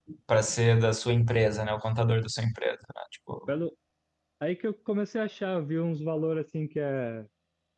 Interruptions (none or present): none